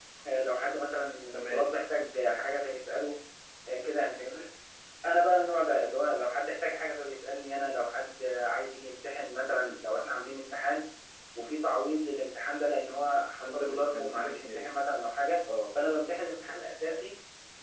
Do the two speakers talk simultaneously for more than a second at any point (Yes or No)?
Yes